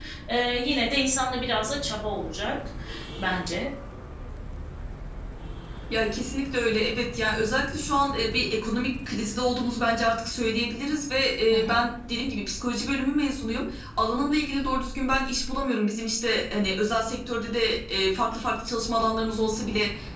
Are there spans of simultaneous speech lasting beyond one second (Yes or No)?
No